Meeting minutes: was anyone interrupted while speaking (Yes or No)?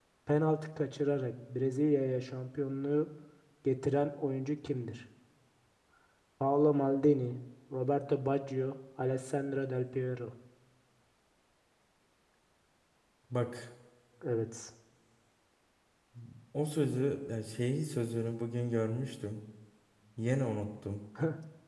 No